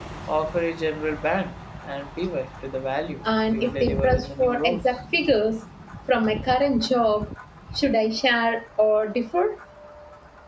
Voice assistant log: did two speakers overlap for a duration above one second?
Yes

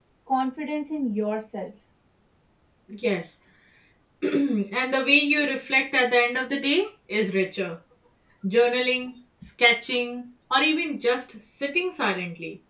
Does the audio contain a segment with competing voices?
No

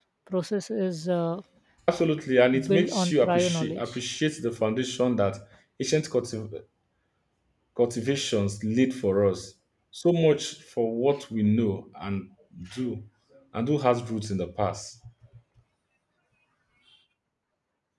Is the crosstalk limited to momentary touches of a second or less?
No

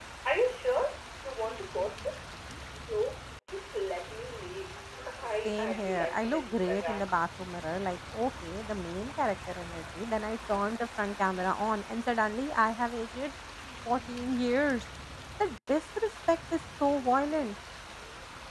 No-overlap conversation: No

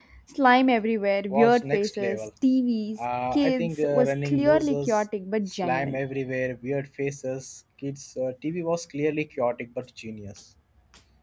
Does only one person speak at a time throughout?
No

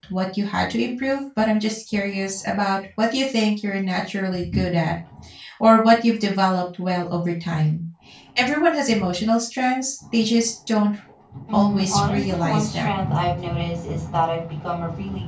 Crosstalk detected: Yes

